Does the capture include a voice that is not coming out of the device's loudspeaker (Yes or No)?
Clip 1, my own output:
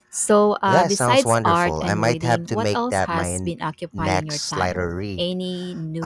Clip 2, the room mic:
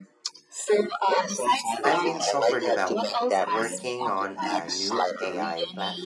Yes